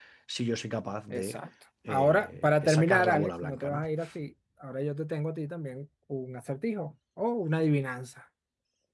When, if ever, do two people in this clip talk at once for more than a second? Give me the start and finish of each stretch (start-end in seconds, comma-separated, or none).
1.9-3.8